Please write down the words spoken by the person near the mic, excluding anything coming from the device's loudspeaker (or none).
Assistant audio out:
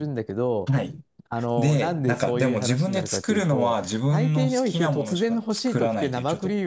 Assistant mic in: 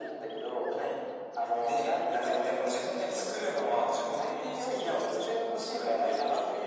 none